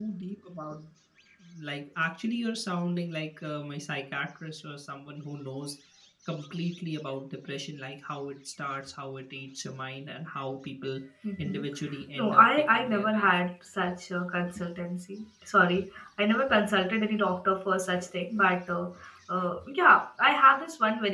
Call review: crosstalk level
present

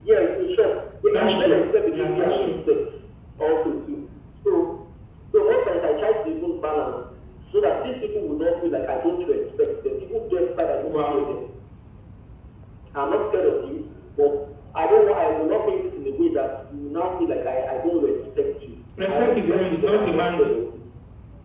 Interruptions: present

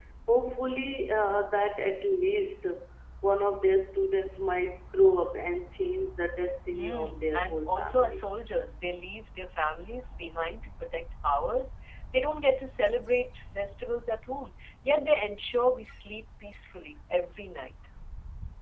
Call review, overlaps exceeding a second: present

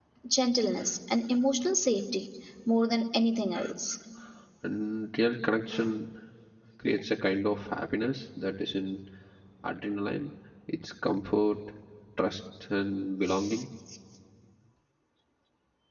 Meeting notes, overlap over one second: none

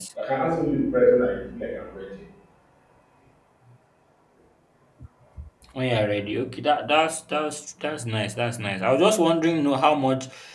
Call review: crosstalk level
none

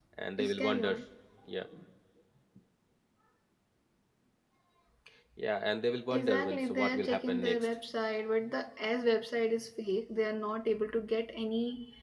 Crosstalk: present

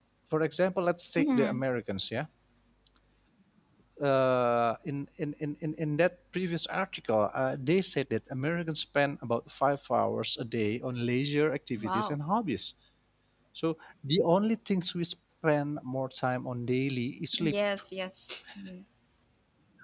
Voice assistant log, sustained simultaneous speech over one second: none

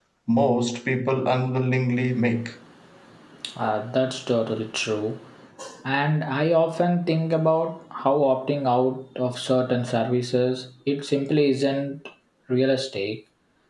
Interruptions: none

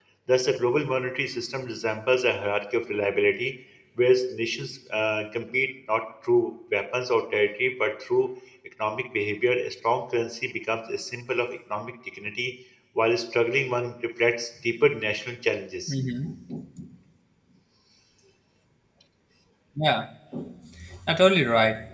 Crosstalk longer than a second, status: none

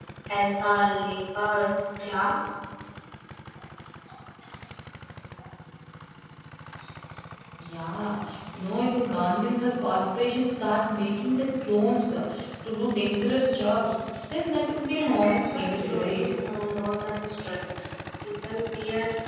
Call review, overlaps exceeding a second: present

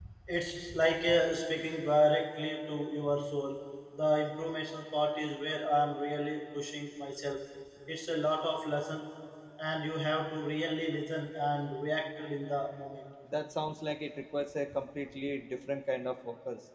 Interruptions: none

